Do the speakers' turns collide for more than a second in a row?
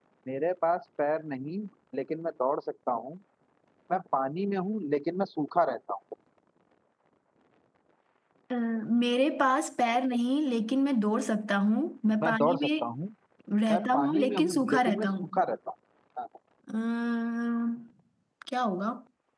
Yes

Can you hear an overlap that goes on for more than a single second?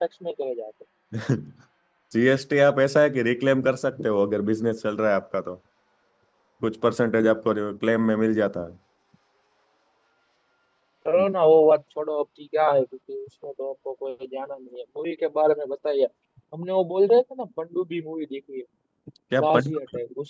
No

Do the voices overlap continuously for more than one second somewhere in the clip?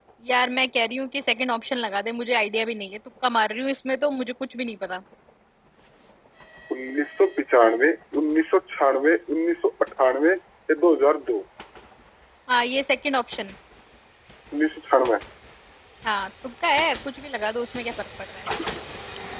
No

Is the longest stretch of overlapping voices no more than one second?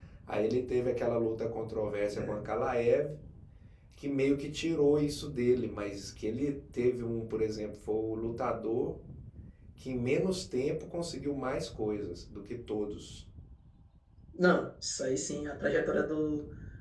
Yes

